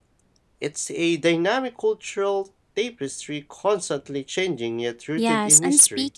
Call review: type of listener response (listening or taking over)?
taking over